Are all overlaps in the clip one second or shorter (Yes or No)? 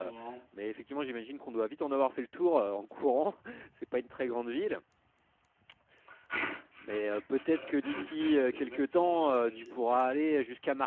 No